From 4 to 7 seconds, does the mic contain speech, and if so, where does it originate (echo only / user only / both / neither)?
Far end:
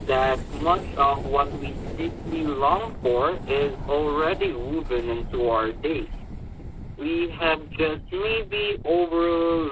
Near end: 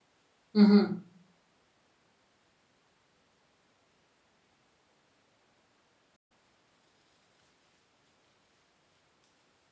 neither